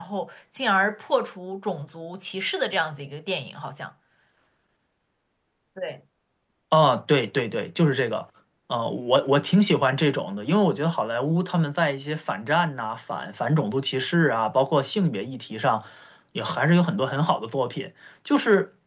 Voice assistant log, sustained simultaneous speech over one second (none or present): none